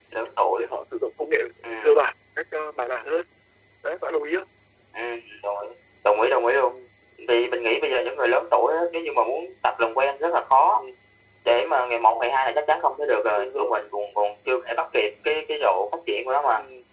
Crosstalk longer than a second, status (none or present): none